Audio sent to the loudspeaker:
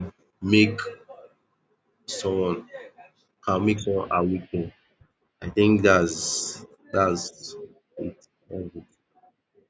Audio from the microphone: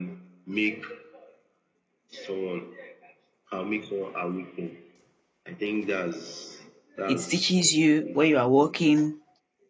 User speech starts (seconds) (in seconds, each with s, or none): 7.0 s